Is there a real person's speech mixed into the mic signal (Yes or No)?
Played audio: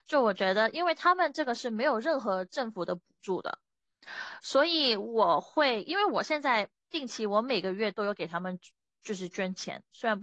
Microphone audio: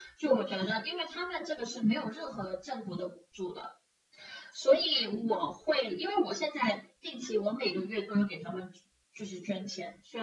No